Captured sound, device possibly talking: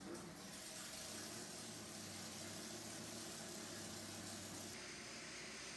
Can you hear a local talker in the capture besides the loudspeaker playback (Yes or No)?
No